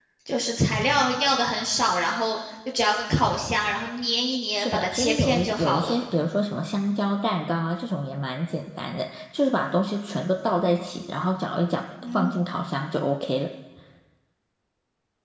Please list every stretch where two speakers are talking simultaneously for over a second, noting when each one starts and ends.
4.5-6.0

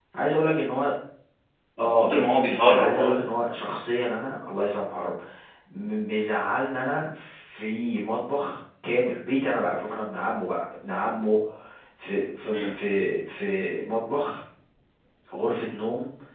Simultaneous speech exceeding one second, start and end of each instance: 1.8-3.1

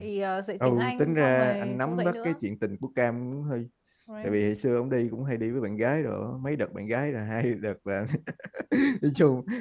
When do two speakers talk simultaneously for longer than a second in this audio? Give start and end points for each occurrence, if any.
0.6-2.4

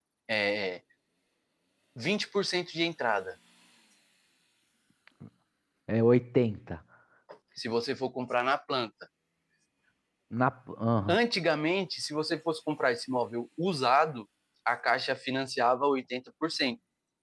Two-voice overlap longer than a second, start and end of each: none

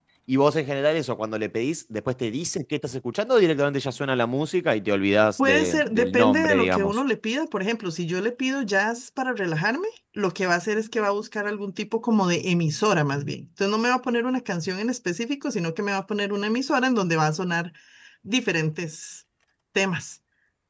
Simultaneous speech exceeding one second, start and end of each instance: 5.4-7.0

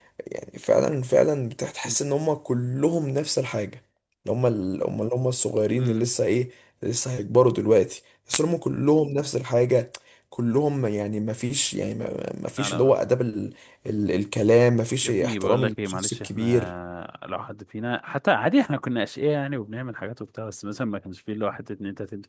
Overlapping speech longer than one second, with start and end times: 15.0-16.7

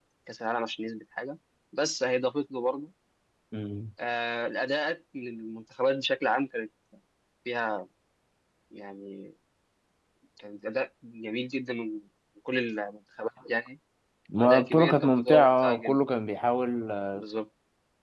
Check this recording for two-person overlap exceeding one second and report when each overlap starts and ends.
14.4-16.0

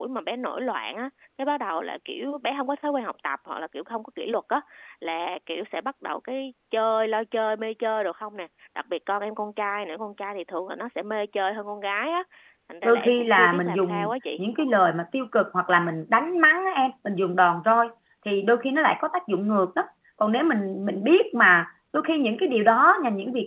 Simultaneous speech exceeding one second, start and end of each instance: 12.8-14.4

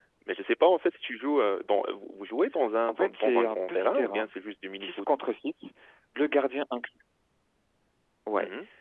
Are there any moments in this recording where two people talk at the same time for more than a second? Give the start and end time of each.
2.9-4.3

